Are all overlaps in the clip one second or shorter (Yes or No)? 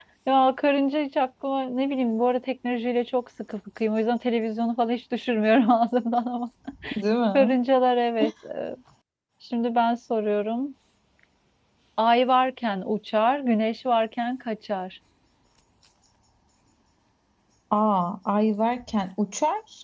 Yes